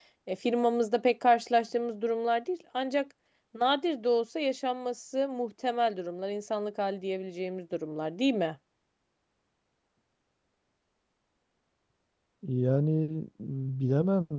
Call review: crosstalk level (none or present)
none